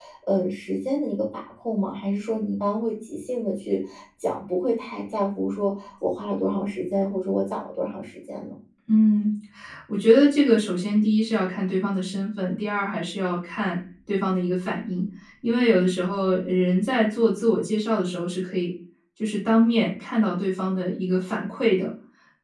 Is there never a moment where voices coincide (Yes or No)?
Yes